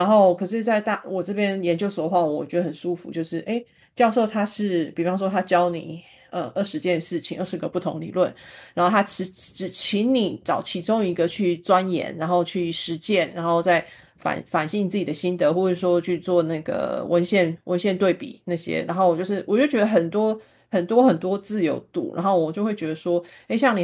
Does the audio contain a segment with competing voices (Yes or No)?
No